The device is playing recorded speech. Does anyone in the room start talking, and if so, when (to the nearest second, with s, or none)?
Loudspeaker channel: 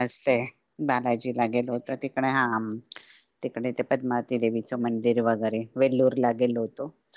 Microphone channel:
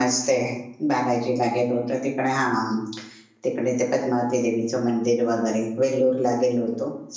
none